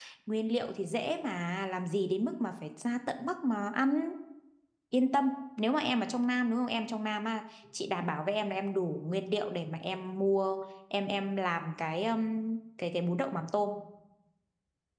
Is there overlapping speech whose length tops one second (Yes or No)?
No